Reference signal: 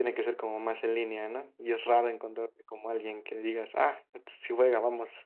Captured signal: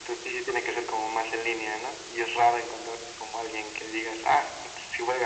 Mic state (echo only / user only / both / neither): echo only